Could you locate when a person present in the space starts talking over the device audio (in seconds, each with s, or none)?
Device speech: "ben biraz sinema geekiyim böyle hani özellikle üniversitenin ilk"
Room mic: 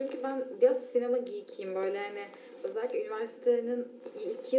none